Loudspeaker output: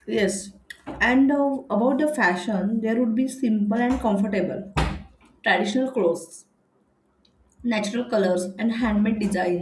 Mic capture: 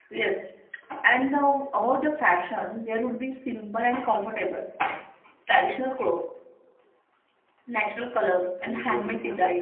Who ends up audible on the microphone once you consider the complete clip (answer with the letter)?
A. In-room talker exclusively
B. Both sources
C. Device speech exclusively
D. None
B